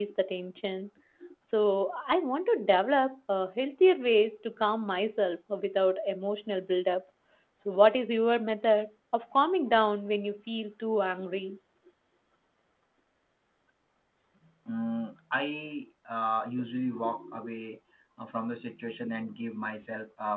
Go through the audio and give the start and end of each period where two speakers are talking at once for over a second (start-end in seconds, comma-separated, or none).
none